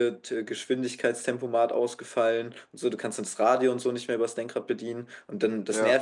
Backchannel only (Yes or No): Yes